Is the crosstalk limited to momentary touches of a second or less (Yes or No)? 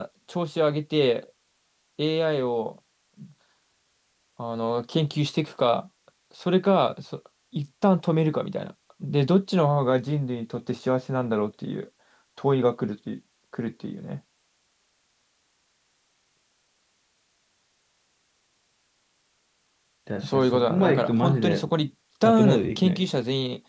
No